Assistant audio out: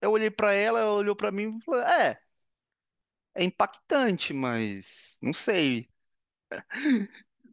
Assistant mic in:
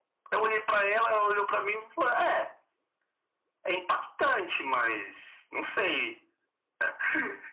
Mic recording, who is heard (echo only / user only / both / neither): echo only